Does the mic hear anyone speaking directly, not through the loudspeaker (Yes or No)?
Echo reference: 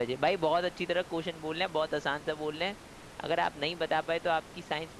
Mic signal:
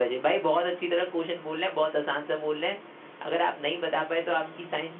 Yes